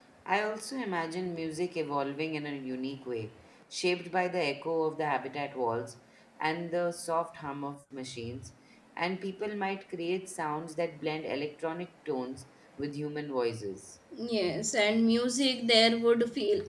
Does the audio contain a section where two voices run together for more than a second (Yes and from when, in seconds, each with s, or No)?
No